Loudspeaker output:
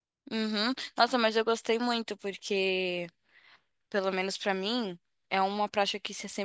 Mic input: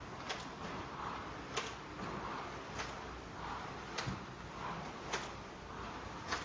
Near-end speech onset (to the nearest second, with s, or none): none